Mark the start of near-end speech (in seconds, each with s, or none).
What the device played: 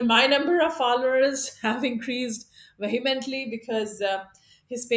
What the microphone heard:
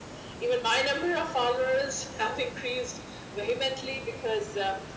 none